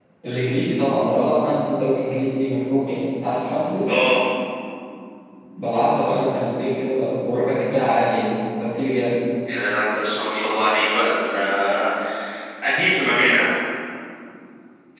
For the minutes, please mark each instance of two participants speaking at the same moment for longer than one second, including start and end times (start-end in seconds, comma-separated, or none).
none